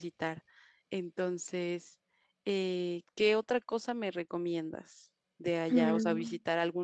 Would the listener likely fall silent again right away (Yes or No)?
Yes